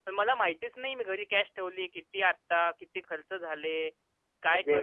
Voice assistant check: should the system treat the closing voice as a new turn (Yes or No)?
Yes